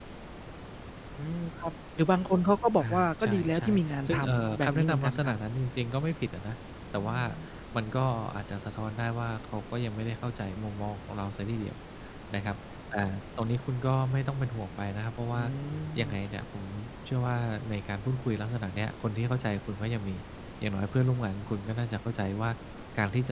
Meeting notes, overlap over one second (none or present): present